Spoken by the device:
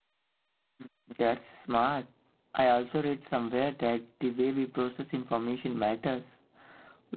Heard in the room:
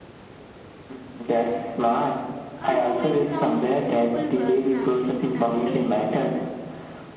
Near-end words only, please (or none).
are doing some simple uh, practi- practical exercises